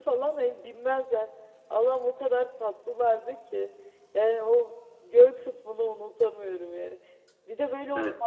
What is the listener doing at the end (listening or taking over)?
listening